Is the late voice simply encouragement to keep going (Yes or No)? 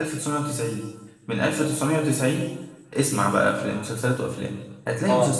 Yes